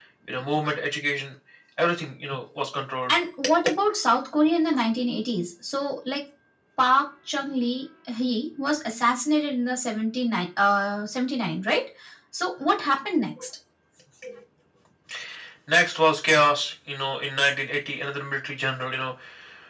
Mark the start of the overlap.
none

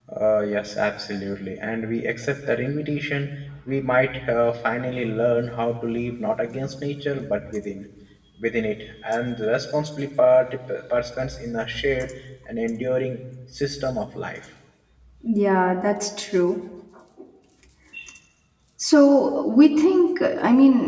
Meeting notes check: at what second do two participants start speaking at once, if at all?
none

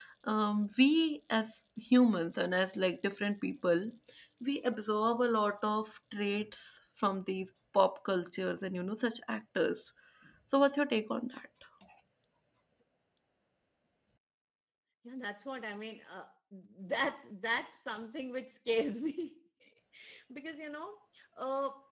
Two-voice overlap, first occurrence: none

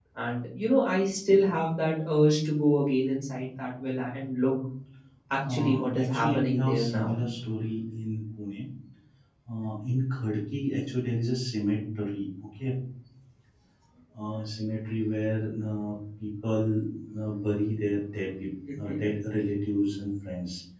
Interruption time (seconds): 5 s

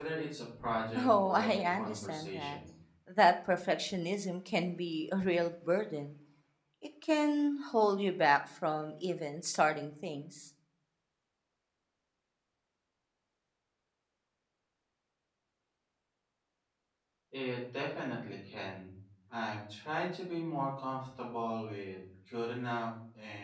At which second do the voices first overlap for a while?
1 s

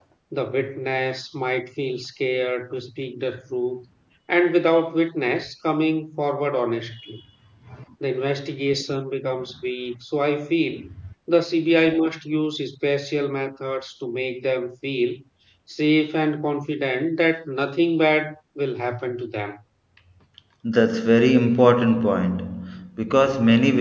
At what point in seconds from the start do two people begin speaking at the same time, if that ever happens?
none

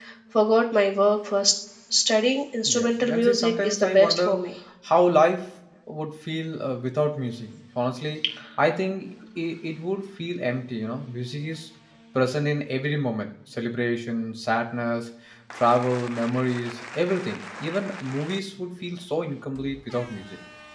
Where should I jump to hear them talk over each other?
3 s

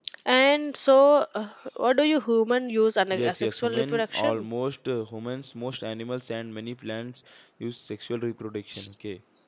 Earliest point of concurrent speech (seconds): 3 s

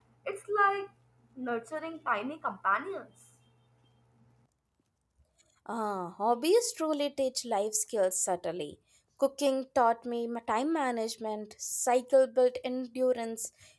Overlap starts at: none

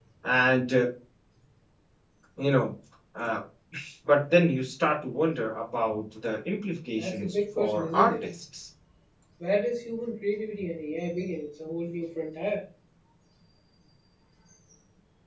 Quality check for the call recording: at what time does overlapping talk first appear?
7 s

